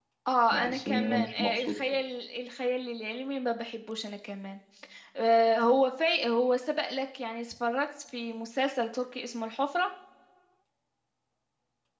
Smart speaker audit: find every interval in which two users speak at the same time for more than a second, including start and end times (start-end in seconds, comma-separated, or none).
0.5-2.0